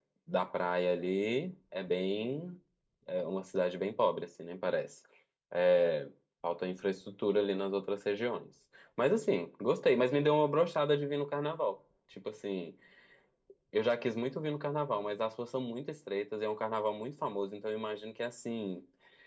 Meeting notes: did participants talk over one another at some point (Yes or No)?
No